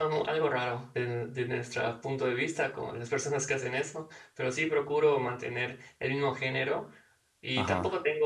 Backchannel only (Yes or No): Yes